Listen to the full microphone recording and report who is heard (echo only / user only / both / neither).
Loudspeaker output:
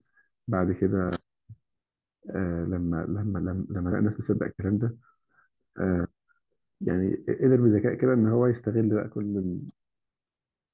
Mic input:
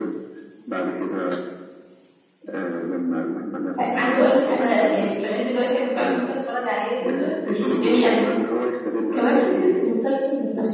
both